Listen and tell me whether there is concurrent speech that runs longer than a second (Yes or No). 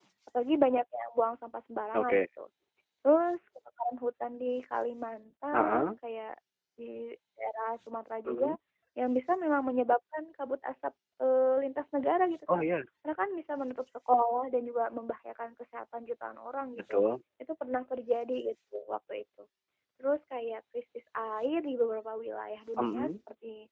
No